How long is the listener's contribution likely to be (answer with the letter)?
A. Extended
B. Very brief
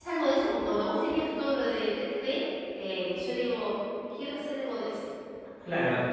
A